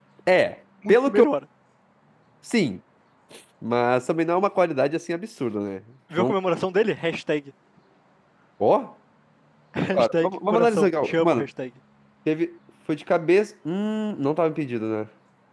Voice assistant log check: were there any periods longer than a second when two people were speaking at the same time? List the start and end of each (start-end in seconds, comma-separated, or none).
9.9-11.5